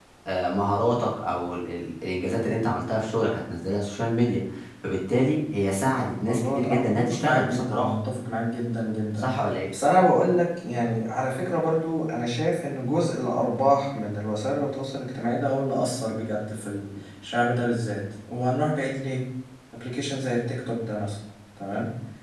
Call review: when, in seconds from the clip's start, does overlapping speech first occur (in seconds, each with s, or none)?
6.2 s